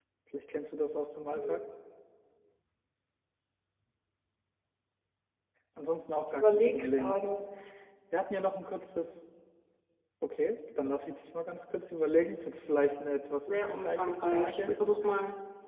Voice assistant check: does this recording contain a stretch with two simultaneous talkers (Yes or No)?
Yes